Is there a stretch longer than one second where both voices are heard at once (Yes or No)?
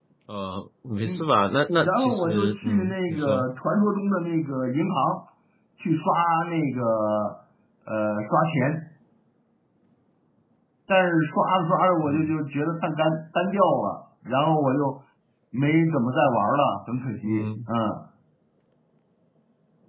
Yes